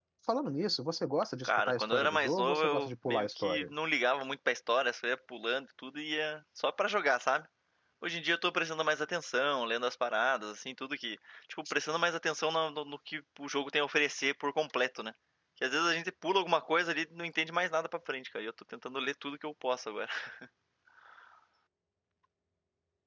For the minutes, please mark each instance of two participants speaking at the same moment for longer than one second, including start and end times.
1.4-3.7

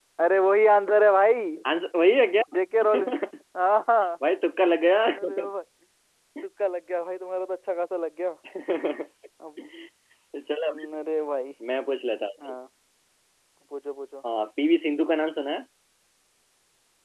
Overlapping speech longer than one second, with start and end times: none

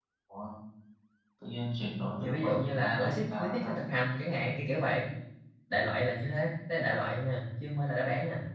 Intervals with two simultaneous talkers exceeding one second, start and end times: 2.2-3.8

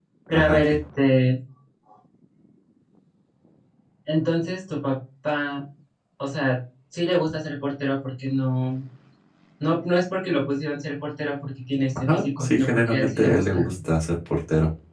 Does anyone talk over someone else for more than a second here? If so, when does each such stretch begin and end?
12.0-13.6

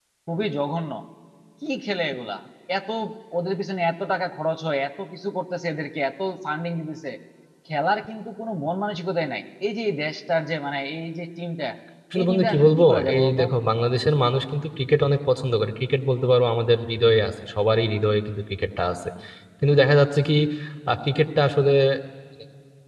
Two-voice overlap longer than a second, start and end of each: 12.2-13.4

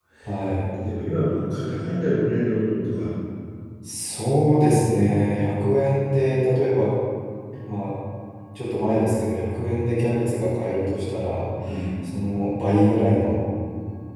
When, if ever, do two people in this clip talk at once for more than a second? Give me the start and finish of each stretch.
none

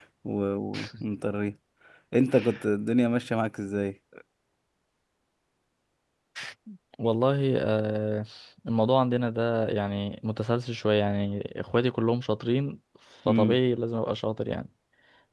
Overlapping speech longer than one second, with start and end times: none

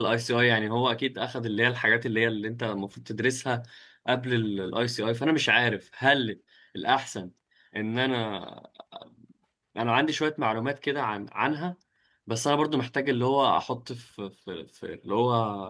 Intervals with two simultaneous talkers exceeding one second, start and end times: none

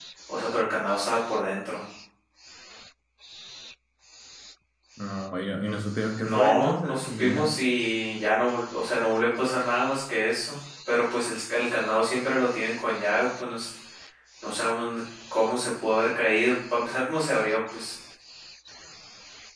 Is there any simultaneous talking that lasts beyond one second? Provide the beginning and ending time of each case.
6.2-7.5

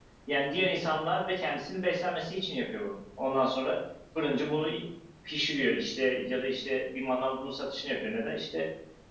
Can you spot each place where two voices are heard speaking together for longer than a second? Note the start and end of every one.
none

